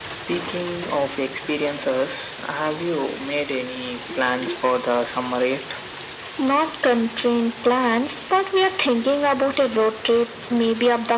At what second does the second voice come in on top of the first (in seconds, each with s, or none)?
none